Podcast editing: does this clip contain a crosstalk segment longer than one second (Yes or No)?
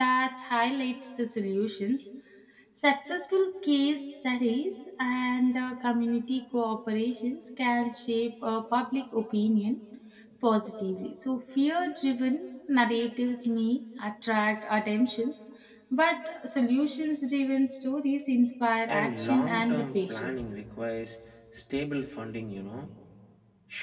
Yes